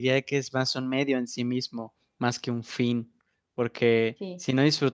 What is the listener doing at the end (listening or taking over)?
listening